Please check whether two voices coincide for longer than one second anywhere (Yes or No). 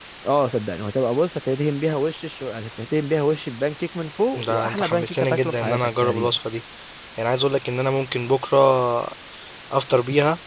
Yes